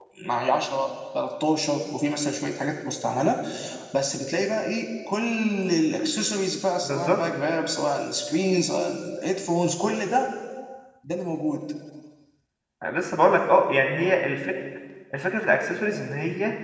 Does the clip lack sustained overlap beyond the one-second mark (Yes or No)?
Yes